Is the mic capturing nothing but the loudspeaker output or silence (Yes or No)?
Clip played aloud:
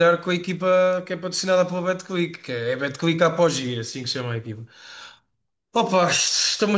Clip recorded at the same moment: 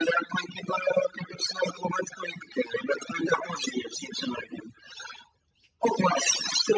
Yes